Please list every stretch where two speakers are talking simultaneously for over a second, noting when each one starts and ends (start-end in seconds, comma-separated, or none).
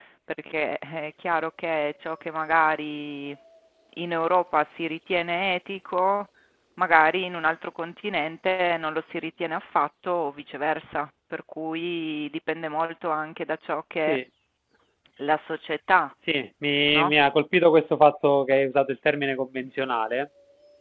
none